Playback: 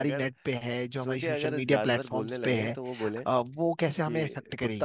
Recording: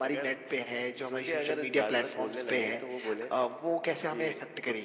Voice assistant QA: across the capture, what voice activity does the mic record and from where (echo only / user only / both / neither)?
echo only